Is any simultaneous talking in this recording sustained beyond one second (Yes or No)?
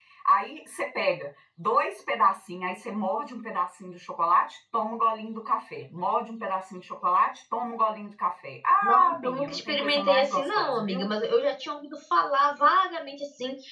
Yes